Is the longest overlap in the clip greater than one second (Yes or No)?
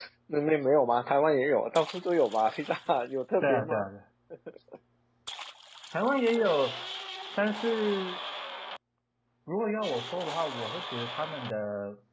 No